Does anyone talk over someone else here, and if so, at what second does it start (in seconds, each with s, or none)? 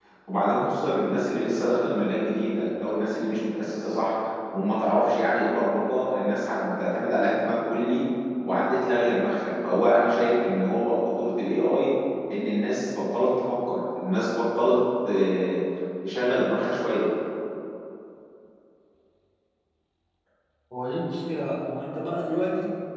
none